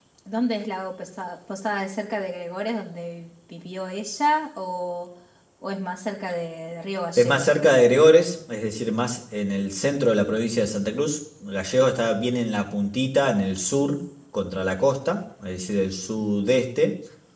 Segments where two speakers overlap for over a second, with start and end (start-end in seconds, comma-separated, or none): none